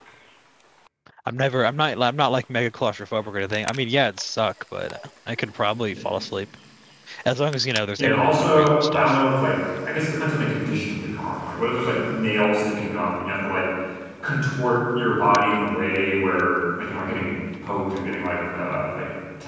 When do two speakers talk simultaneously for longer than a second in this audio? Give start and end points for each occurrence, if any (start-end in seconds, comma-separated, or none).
8.0-9.2